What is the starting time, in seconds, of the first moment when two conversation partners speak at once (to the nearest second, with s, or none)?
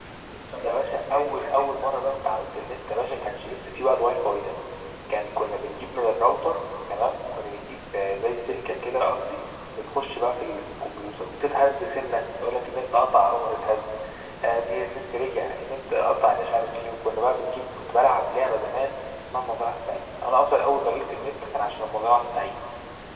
1 s